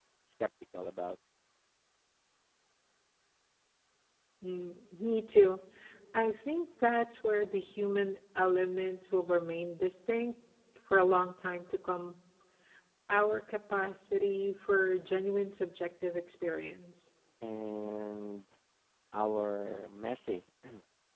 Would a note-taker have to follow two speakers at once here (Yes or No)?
No